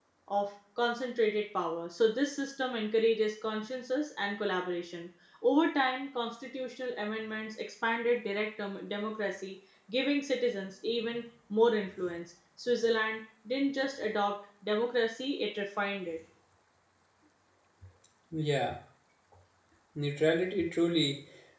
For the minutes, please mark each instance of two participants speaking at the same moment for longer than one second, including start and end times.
none

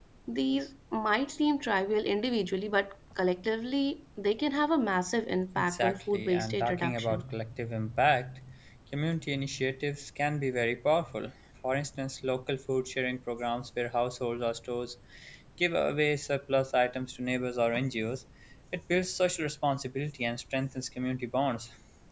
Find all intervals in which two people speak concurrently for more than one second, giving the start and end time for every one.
5.6-7.2

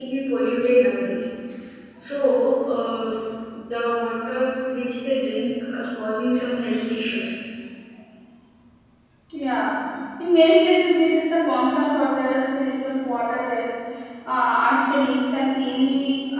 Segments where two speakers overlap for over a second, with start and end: none

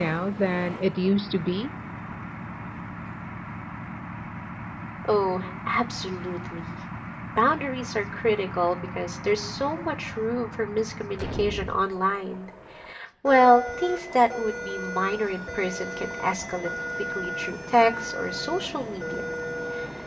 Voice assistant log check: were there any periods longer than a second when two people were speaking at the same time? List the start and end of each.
none

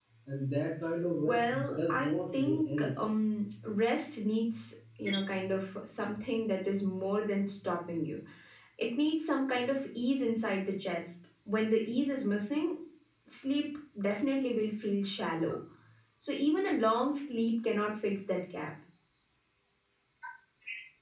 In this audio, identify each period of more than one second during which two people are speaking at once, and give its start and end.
1.2-3.1

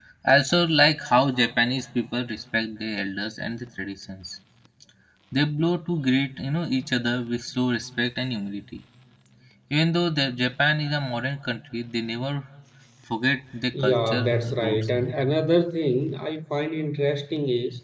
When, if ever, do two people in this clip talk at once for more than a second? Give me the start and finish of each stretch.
13.8-15.1

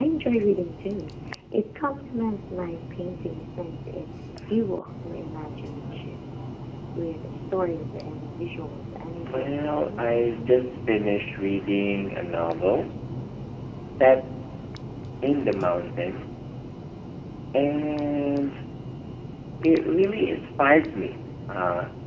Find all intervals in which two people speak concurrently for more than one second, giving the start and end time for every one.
9.4-10.6

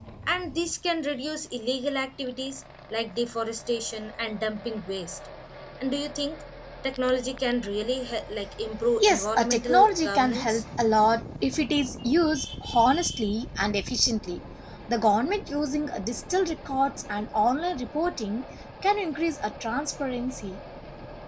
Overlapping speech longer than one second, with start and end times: 9.0-10.6

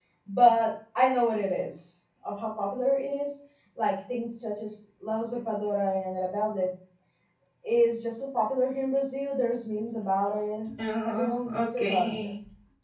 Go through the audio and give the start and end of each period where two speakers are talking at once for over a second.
11.0-12.3

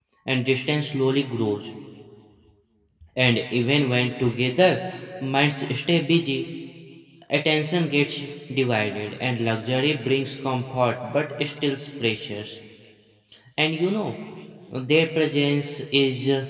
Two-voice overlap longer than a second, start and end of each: none

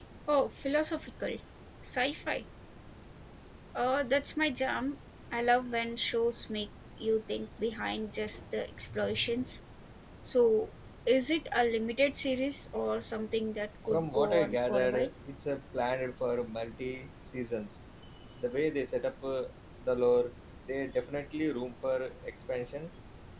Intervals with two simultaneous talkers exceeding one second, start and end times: 13.9-15.1

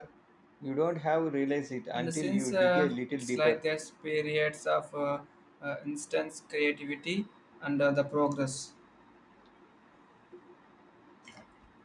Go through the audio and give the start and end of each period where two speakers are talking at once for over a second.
1.9-3.6

